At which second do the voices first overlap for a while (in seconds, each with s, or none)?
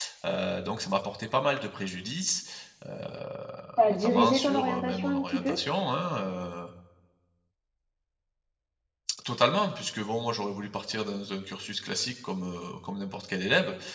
3.9 s